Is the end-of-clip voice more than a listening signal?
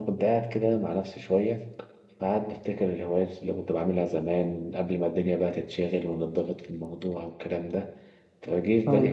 No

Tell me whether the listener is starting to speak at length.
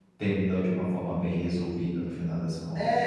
Yes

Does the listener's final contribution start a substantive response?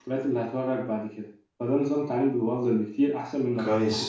No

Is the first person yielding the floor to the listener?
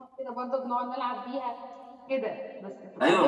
Yes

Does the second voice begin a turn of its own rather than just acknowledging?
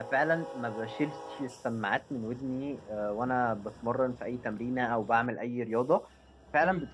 No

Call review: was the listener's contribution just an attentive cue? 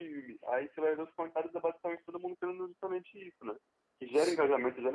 Yes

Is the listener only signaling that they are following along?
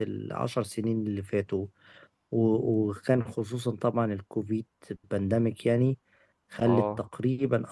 Yes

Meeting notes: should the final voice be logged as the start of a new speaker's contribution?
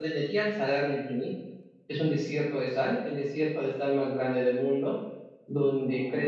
No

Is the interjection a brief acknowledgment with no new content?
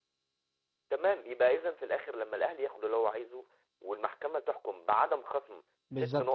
No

